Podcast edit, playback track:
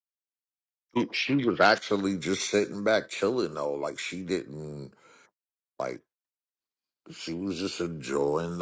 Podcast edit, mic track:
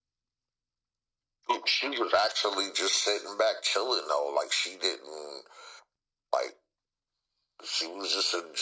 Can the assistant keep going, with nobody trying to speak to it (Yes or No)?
Yes